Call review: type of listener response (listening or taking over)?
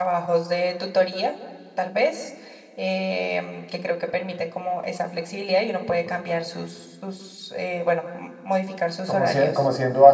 taking over